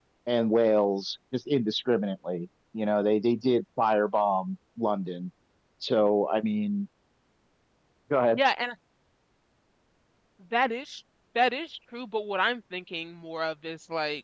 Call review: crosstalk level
none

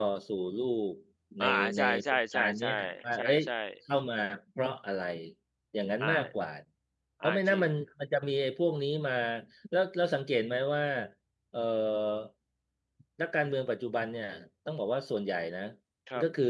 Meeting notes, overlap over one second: present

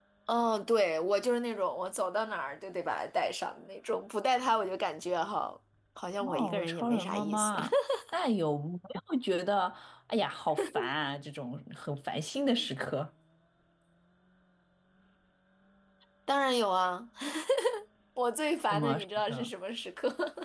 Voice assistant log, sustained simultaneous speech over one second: present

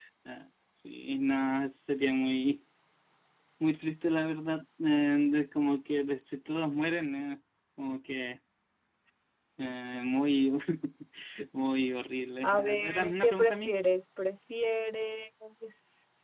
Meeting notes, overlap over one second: present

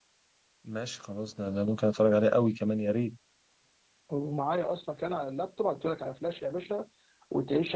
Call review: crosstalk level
none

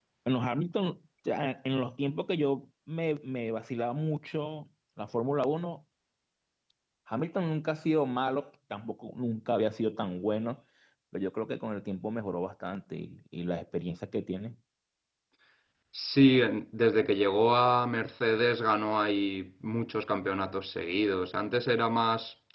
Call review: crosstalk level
none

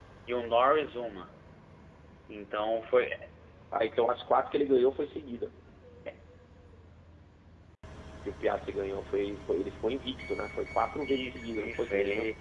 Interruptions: present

